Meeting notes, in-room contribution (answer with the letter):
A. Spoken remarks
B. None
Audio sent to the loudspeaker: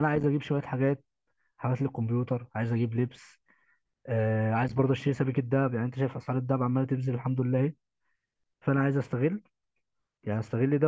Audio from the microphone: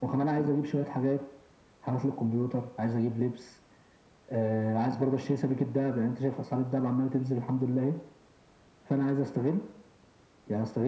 B